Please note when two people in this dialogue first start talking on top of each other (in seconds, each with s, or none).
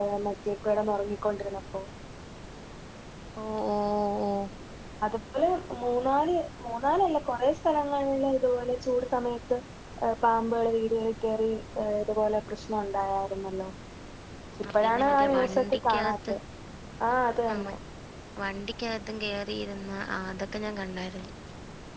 14.7 s